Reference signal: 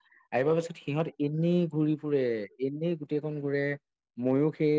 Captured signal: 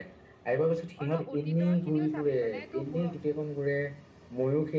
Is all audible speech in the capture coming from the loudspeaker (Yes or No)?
No